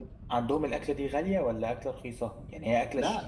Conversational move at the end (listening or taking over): taking over